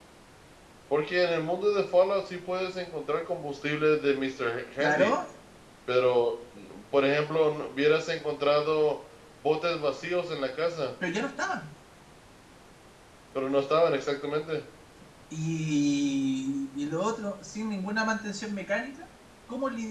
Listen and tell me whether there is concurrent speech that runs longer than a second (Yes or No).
No